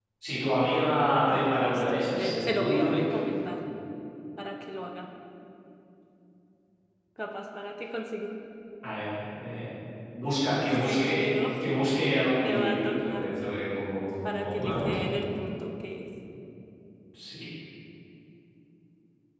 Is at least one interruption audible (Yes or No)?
Yes